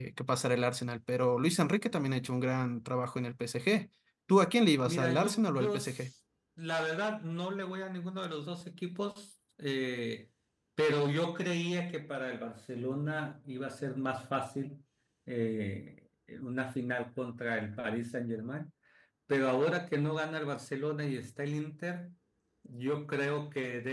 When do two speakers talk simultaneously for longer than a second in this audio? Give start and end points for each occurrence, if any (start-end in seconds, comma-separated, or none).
4.9-6.1